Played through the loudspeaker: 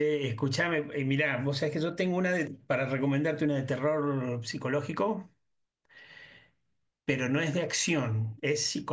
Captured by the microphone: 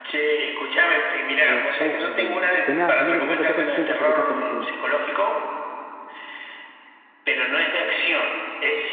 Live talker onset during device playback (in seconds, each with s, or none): 1.4 s